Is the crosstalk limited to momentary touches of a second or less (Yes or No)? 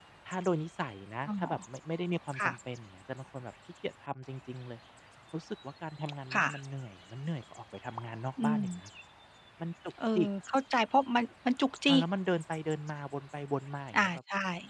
Yes